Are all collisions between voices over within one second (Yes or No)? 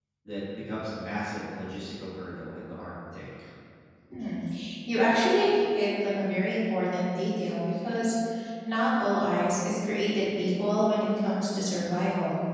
Yes